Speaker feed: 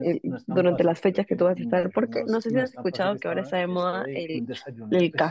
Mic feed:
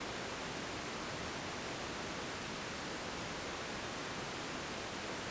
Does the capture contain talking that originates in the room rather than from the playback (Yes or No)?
No